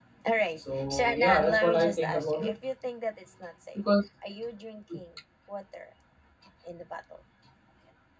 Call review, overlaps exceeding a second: present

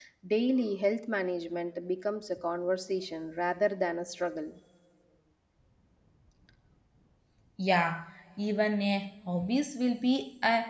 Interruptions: none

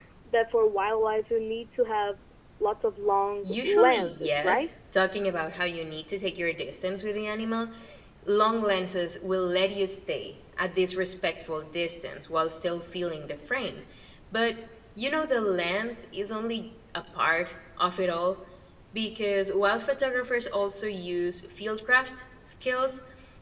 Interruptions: present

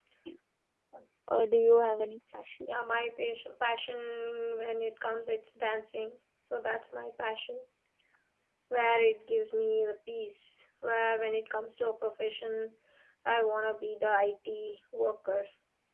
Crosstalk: none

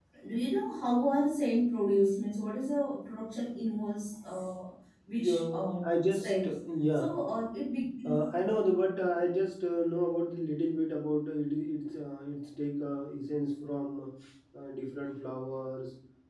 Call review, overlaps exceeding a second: present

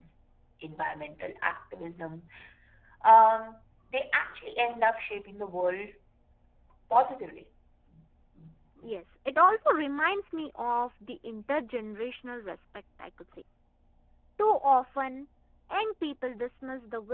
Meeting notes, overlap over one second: none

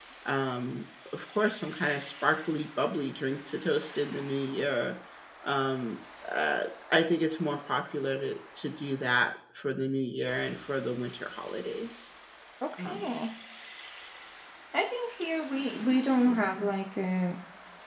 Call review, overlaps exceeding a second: none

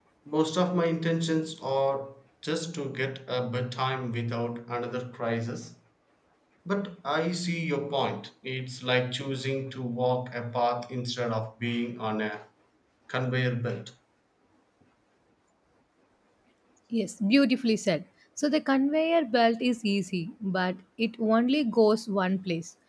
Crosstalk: none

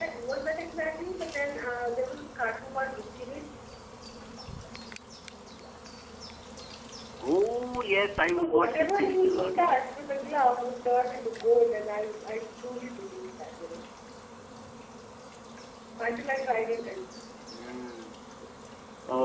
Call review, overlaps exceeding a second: present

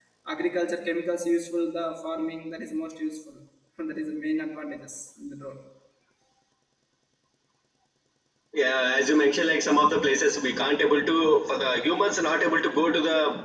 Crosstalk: none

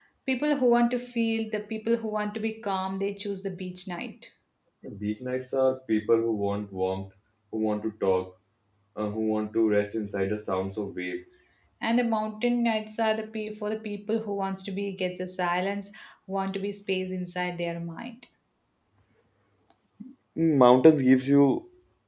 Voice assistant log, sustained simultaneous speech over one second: none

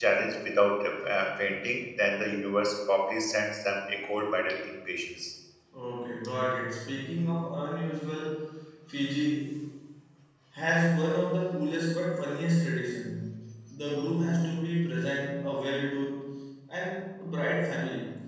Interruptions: none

